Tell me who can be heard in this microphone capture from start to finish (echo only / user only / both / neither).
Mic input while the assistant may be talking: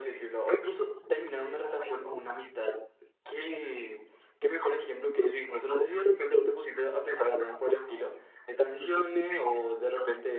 echo only